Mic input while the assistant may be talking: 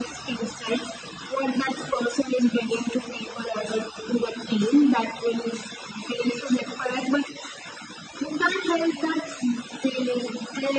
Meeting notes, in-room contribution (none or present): none